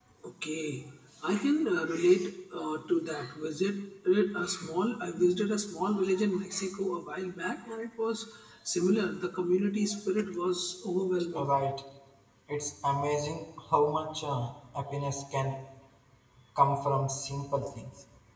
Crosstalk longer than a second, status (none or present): none